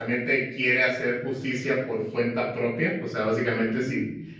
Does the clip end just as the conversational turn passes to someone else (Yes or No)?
No